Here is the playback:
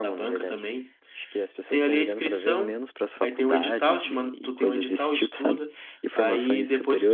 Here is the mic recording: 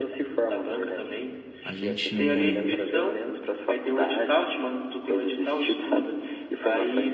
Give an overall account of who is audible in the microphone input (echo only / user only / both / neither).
both